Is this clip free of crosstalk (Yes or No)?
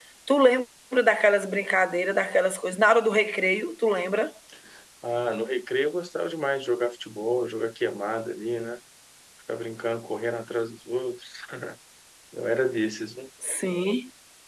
Yes